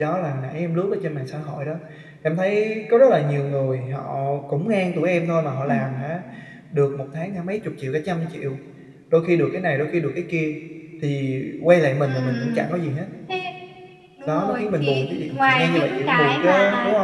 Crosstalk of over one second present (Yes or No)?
Yes